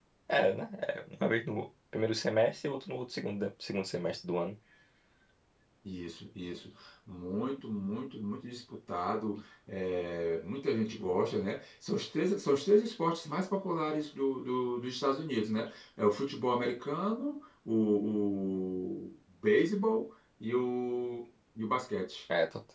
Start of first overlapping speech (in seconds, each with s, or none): none